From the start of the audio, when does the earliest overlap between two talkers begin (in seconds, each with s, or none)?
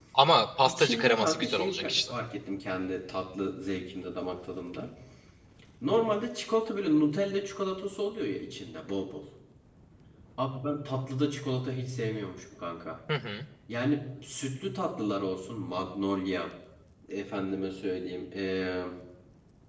0.7 s